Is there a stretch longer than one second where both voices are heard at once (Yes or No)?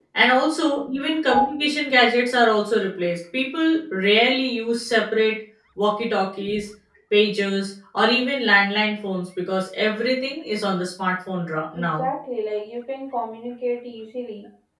No